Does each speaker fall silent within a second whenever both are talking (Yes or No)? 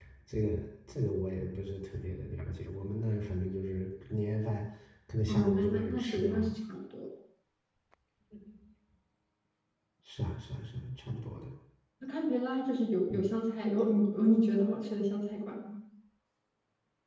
No